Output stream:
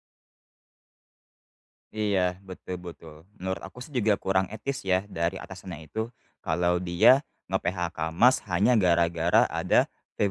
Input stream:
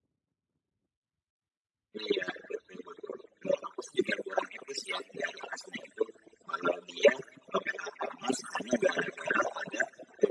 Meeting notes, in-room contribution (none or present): none